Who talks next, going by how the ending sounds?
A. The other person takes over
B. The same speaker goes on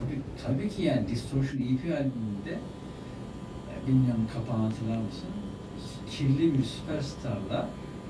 B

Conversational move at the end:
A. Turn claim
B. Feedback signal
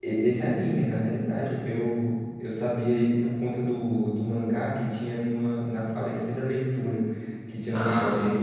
B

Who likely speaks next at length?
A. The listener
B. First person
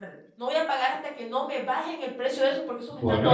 A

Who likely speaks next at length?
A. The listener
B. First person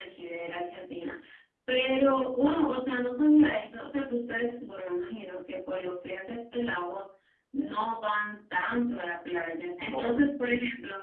B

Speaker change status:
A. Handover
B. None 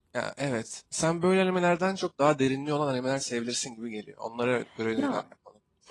A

